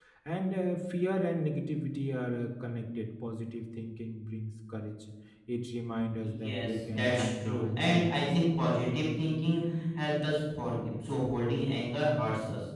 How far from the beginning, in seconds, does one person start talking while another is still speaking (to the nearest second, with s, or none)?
6 s